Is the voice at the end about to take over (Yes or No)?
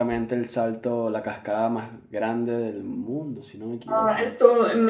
Yes